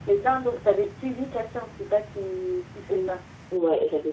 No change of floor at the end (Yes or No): No